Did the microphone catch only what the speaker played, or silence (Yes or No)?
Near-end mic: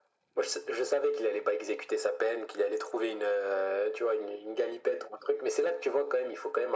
Yes